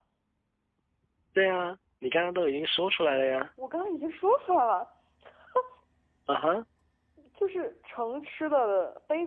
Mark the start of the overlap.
none

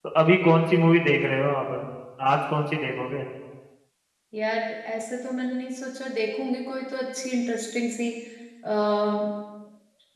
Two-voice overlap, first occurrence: none

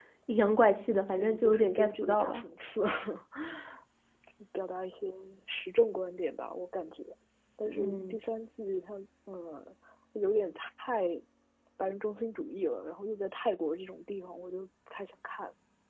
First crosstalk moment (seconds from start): 0.8 s

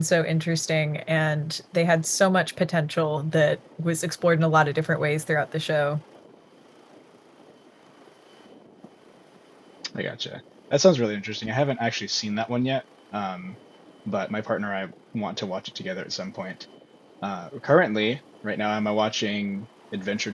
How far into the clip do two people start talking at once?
none

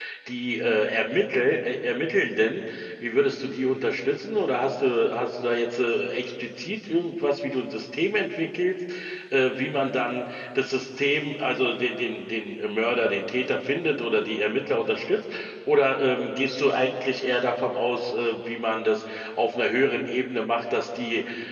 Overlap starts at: none

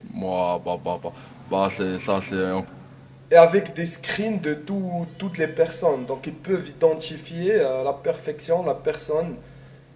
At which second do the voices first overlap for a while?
none

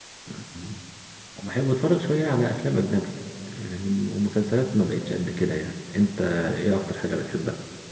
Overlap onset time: none

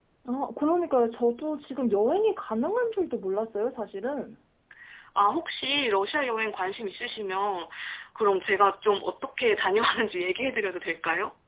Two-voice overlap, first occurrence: none

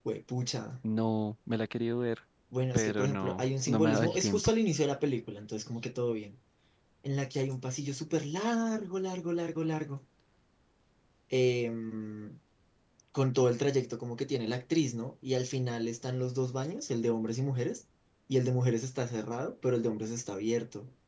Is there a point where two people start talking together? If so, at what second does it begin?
2.7 s

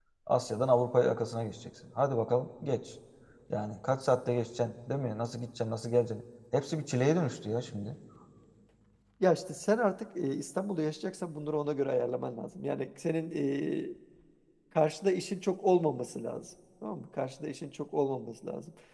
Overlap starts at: none

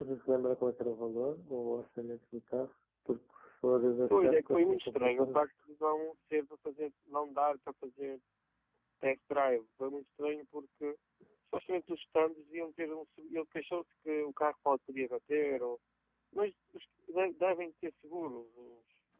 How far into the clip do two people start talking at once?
4.1 s

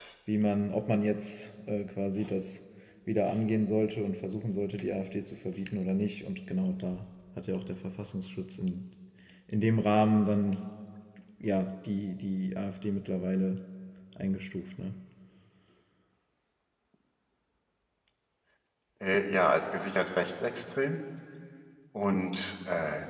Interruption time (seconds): none

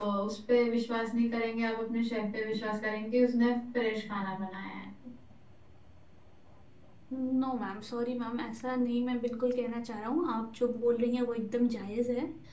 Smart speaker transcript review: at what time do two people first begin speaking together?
none

